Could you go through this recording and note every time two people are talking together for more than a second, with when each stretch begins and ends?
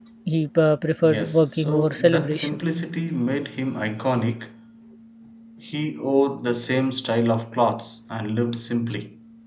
1.0-2.6

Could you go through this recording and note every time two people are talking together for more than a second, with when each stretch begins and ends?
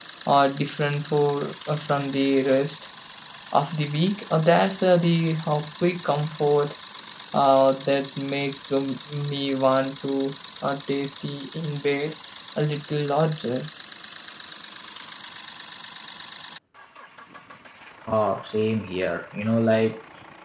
none

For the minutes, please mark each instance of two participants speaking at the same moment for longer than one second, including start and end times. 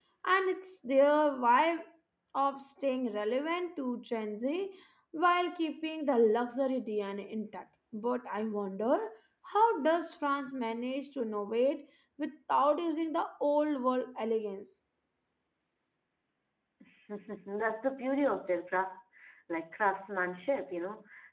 none

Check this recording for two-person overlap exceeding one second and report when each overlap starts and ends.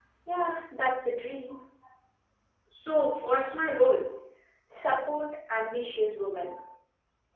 none

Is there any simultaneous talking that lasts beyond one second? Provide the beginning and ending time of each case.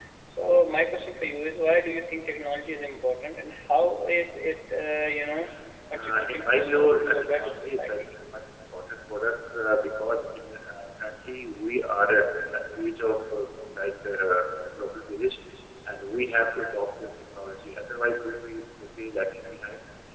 6.0-7.9

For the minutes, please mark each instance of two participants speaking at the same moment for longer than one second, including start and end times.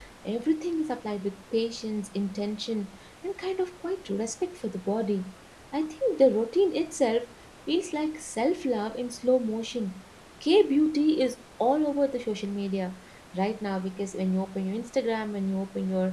none

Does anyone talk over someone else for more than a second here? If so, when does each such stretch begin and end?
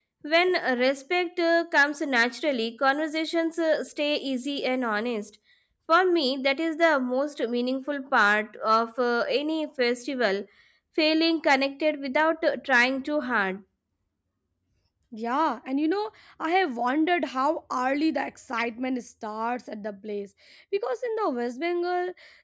none

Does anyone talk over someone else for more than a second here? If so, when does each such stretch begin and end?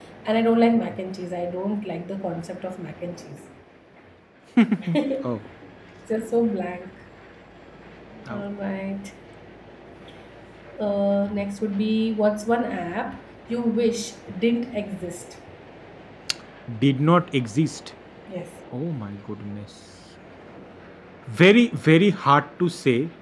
none

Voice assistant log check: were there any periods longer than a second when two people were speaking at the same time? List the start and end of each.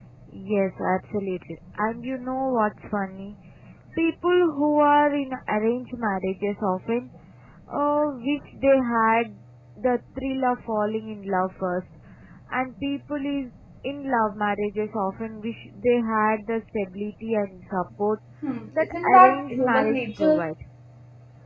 18.8-20.4

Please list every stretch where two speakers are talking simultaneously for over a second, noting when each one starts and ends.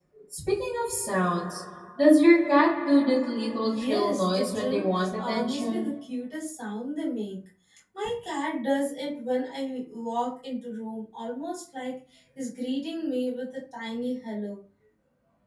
3.6-5.9

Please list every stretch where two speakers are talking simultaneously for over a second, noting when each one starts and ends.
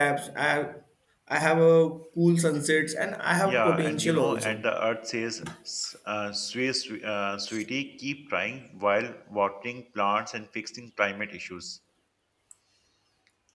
3.4-4.6

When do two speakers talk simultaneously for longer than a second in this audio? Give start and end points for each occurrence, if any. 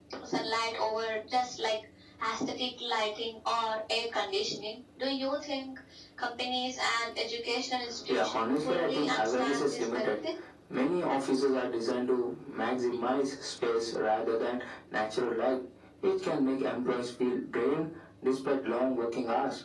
8.1-10.2

